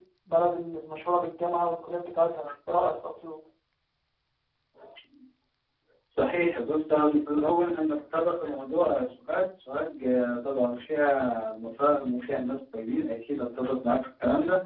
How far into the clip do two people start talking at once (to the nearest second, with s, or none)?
none